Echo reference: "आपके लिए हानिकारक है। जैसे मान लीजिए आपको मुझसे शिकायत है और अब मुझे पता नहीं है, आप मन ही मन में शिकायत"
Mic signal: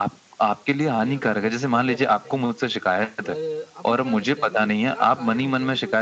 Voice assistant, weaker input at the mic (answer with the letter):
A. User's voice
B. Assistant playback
A